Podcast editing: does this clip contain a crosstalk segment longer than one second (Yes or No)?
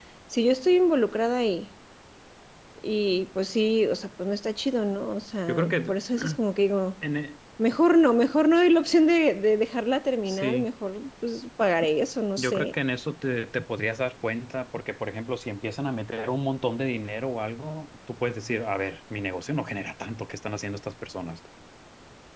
No